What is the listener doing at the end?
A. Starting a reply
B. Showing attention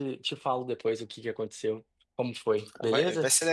A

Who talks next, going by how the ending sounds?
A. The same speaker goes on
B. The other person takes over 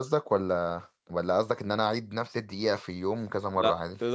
B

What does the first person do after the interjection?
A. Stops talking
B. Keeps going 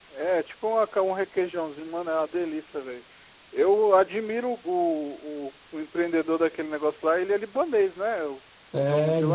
A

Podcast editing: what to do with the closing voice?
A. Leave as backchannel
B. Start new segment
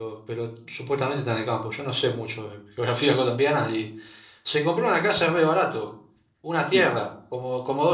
A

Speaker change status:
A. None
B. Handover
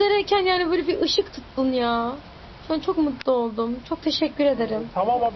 B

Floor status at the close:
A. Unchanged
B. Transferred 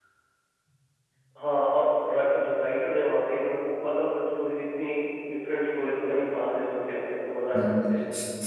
B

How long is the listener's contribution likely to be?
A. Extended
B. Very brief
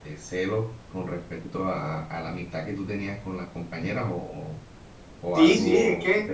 A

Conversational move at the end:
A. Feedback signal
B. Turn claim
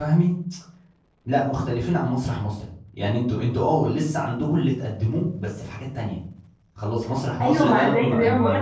B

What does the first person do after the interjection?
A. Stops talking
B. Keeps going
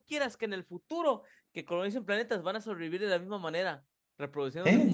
A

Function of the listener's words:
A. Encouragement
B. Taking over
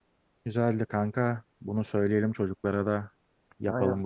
B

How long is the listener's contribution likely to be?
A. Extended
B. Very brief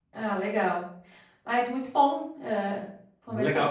A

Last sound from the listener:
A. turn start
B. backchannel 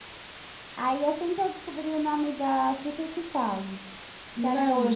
A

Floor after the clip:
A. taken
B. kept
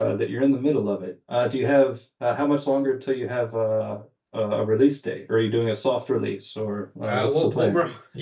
A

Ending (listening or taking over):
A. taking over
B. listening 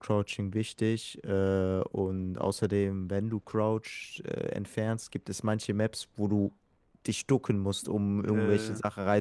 B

